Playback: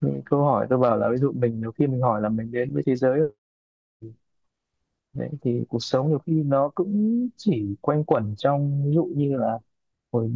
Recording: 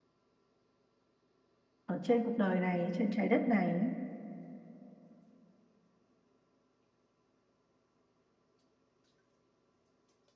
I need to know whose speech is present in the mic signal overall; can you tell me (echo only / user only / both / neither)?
user only